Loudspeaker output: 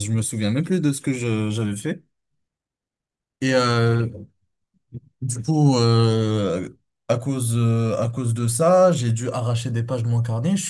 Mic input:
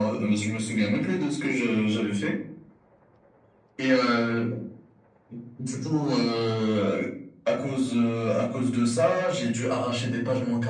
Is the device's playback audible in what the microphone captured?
Yes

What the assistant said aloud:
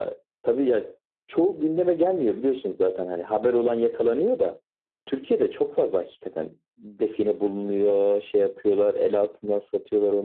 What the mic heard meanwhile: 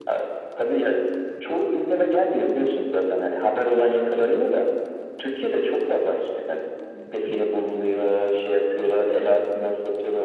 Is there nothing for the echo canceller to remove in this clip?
No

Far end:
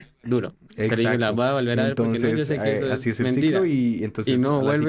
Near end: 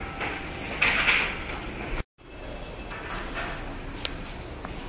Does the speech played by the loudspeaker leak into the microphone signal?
No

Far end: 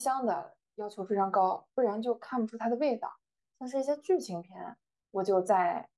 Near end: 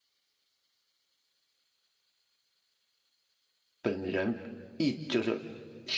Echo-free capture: Yes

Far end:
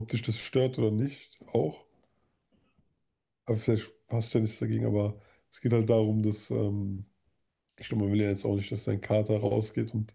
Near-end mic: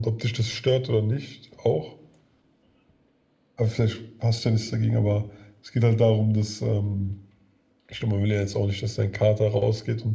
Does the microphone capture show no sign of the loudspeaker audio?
No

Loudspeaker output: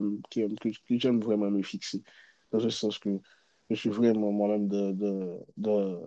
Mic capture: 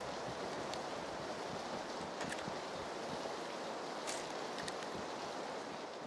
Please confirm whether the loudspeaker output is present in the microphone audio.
No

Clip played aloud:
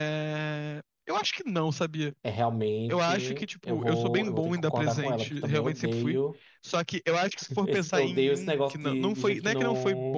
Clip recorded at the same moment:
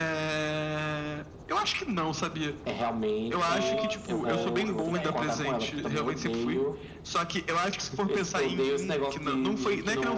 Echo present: Yes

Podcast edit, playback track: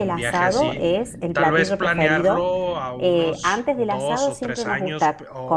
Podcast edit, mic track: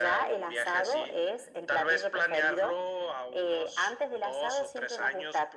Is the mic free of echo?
No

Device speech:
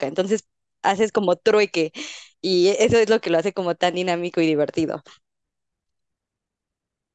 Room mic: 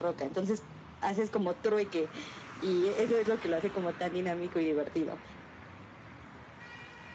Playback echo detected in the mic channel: Yes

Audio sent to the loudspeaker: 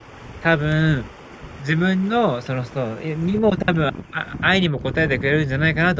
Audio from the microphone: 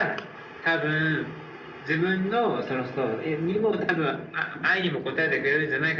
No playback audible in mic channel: No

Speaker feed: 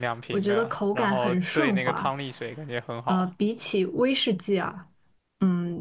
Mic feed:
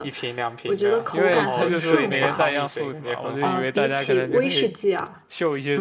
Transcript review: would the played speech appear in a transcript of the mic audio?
Yes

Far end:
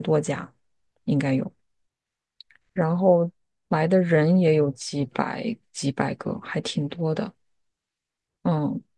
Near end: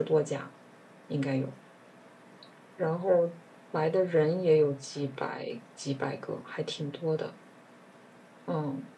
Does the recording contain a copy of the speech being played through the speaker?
Yes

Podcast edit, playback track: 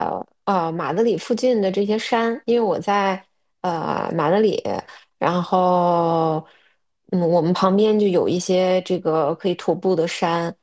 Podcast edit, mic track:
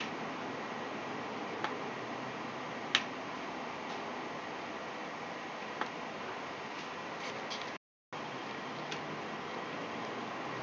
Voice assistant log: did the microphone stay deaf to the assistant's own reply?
Yes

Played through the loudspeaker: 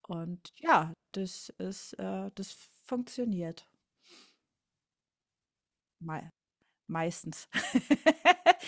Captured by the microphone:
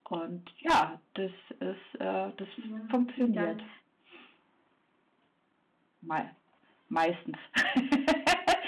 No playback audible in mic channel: No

